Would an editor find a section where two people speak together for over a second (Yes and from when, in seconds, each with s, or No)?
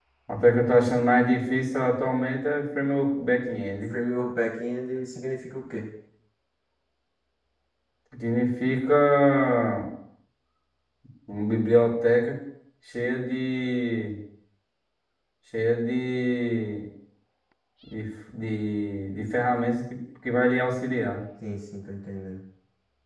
No